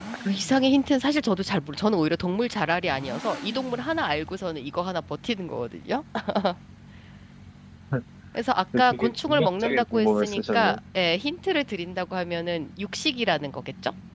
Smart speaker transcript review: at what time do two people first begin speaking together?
8.8 s

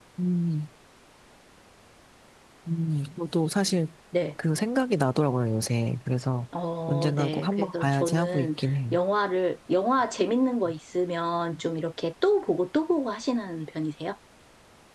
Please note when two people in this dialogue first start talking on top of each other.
6.9 s

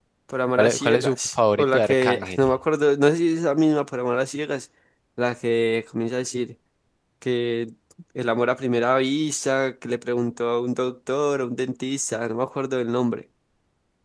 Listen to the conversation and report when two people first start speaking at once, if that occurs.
0.6 s

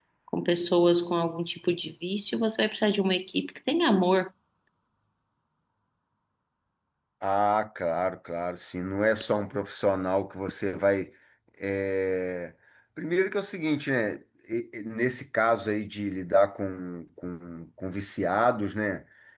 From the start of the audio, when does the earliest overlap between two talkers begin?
none

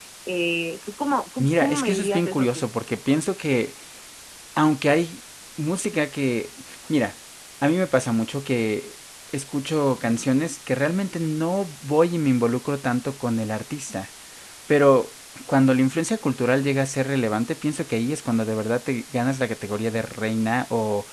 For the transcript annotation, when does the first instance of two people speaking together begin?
1.4 s

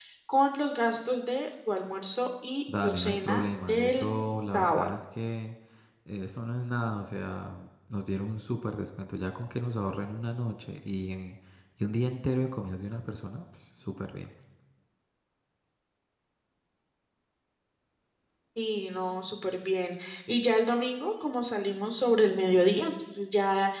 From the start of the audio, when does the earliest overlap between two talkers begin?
2.8 s

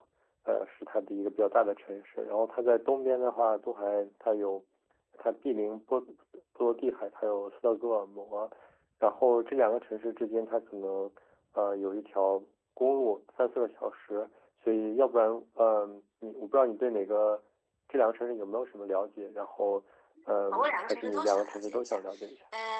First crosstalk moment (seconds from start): 20.5 s

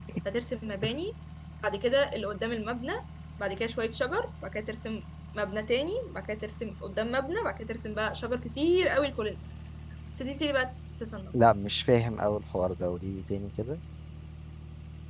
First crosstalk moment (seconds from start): none

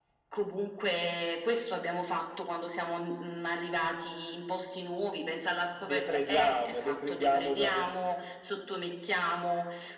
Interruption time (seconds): 5.8 s

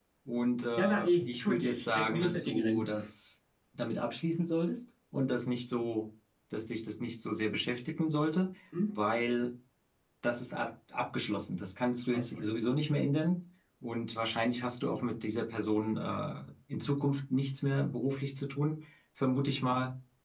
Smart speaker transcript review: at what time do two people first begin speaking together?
0.8 s

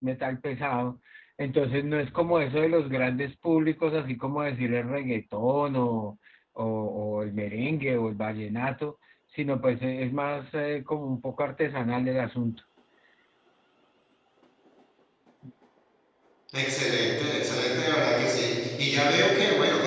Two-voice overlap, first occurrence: none

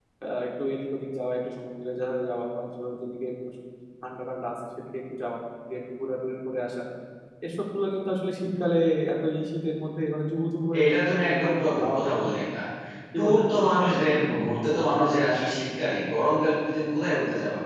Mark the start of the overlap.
10.8 s

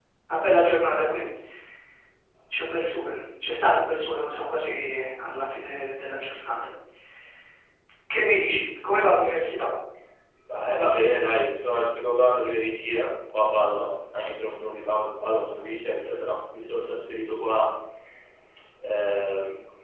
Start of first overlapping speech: none

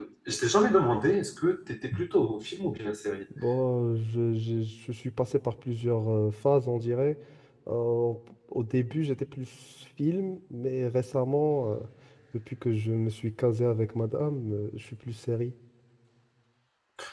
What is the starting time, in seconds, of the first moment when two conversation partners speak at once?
none

